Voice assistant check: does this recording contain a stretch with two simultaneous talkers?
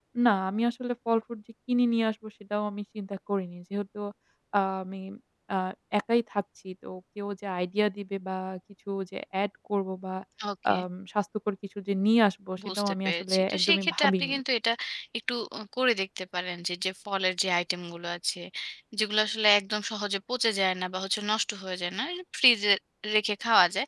Yes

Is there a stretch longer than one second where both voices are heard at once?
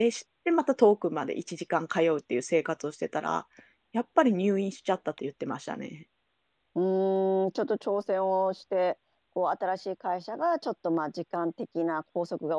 No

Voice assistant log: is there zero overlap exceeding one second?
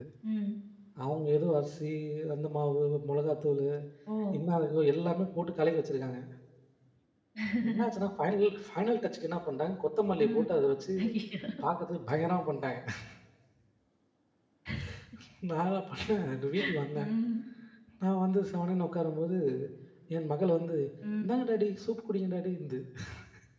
Yes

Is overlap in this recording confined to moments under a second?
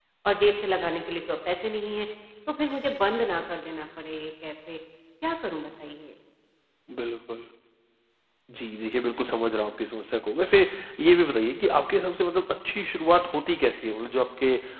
Yes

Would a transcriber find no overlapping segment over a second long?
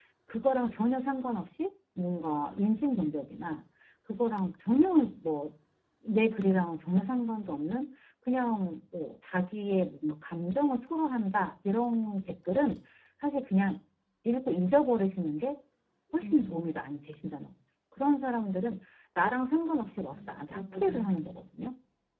No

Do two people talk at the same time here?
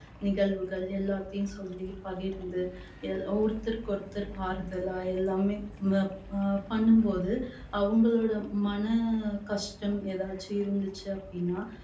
No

